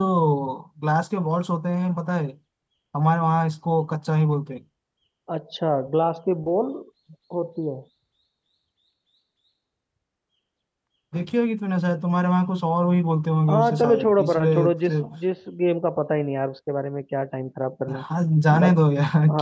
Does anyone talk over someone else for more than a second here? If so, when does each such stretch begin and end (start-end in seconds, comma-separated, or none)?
13.5-15.0